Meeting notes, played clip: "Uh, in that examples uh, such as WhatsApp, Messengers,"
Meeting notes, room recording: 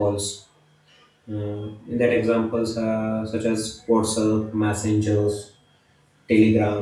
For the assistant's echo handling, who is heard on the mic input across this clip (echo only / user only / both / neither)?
echo only